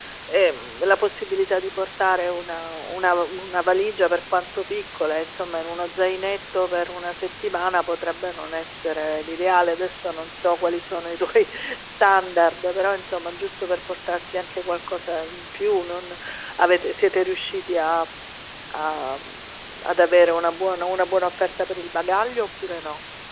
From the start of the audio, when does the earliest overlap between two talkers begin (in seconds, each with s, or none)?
none